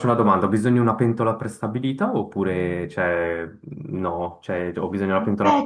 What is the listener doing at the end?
taking over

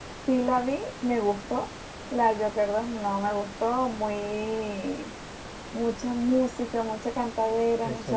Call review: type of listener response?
listening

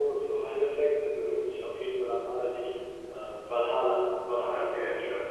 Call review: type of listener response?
taking over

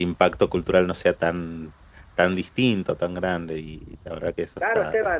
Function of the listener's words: taking over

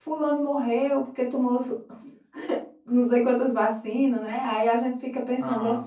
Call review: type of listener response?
listening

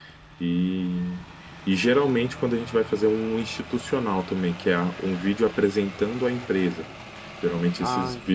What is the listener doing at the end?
listening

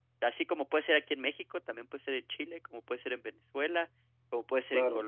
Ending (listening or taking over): listening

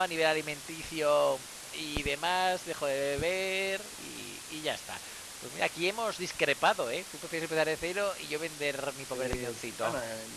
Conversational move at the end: taking over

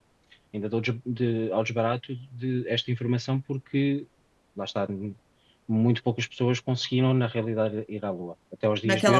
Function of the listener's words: taking over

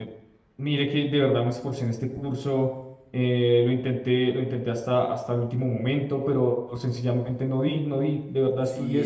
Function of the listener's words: taking over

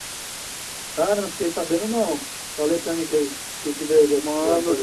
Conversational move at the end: taking over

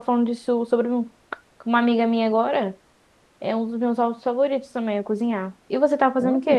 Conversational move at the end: taking over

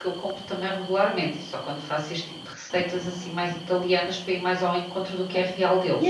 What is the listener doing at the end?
taking over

